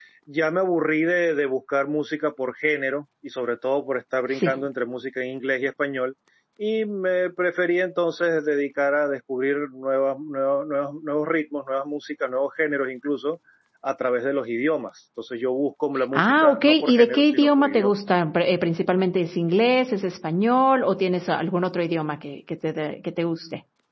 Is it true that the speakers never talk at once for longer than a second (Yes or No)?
No